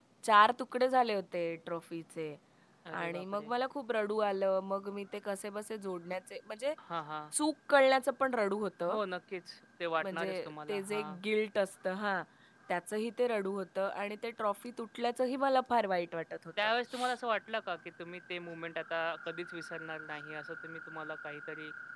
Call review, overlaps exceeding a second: none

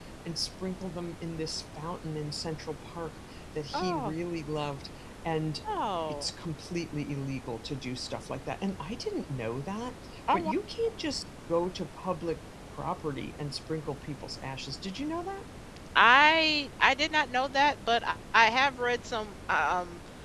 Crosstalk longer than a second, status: none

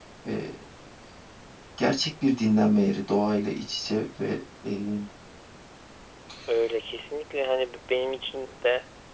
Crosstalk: none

